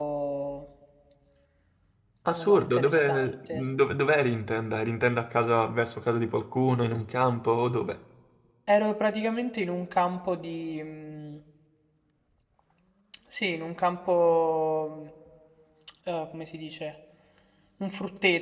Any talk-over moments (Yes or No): Yes